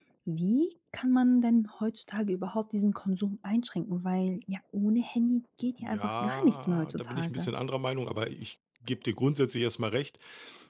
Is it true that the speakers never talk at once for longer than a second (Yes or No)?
No